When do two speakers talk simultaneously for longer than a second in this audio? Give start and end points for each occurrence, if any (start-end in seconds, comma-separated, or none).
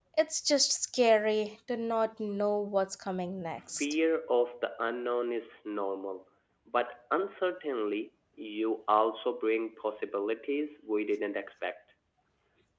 none